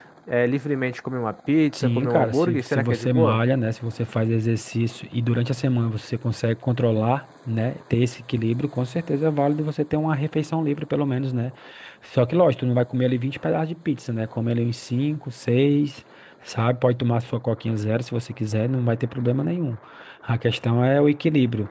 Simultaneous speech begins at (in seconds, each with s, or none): 1.7 s